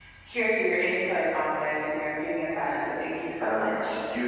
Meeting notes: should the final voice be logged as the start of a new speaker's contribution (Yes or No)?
Yes